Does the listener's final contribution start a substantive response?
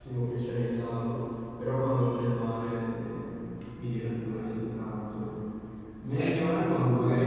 No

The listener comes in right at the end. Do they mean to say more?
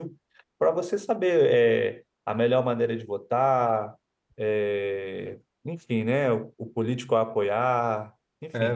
Yes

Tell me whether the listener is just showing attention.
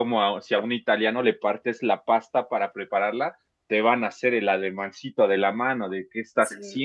No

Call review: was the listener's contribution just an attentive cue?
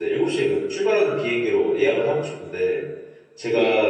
Yes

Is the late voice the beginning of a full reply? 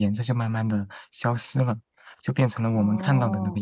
No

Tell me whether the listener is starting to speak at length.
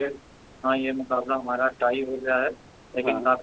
No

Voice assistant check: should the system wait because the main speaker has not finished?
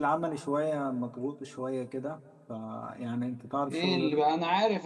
No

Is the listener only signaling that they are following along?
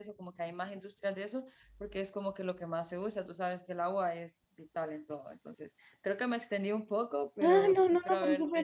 No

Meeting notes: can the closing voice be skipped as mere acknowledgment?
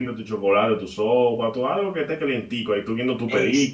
No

